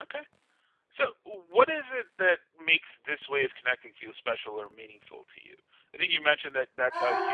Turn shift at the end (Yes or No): No